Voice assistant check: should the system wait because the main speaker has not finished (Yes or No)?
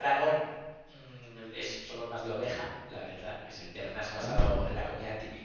Yes